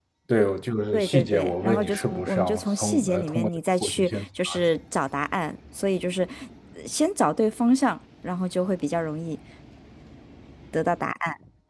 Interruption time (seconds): 1 s

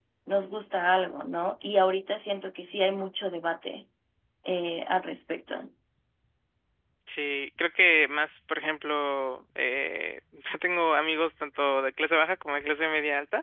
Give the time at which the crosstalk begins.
none

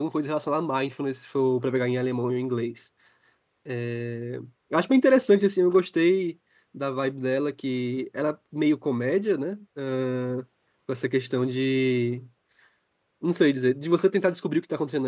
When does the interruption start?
none

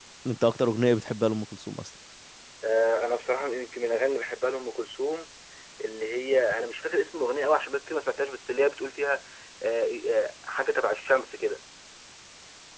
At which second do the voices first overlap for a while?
none

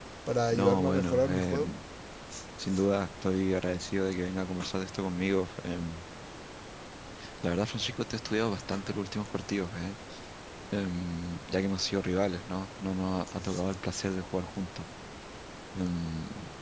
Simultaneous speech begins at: 1 s

